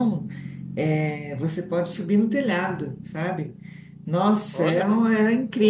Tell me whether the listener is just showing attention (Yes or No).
Yes